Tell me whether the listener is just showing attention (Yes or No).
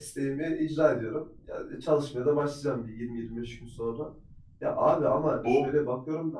Yes